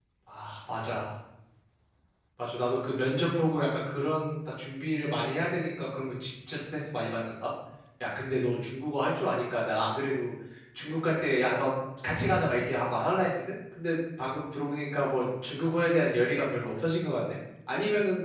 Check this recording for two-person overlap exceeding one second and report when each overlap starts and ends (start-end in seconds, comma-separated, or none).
none